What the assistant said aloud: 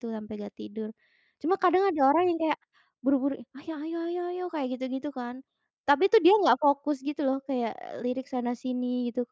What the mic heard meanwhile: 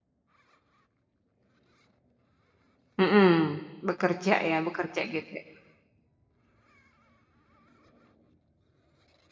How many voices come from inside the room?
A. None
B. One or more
B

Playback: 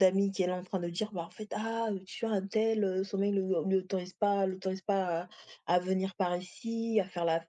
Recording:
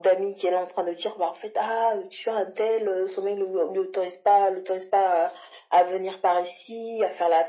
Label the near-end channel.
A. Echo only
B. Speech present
A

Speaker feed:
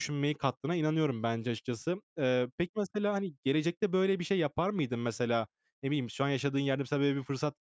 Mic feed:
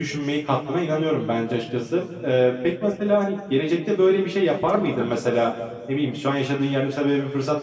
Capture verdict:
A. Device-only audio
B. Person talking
B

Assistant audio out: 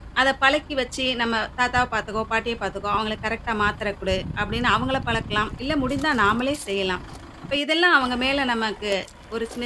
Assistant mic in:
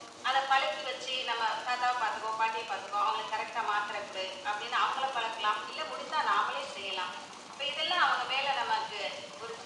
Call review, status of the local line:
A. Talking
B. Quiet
B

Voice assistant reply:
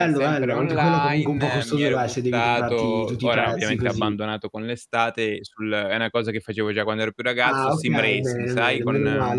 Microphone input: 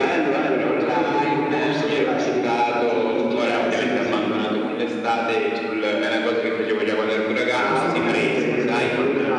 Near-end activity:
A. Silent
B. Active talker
B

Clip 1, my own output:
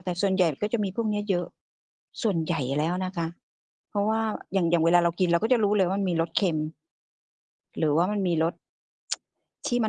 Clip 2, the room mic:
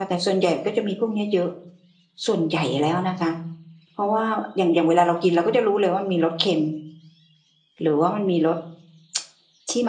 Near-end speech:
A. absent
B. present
A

